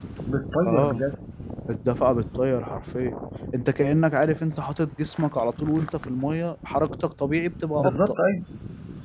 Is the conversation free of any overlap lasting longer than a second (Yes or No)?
Yes